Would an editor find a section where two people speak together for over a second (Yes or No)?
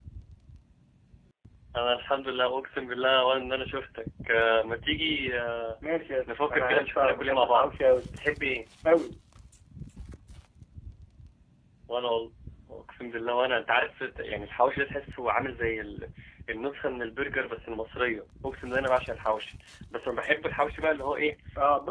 Yes